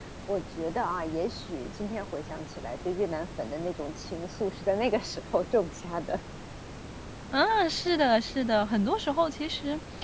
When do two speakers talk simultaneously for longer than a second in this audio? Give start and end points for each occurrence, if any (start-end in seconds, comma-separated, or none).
none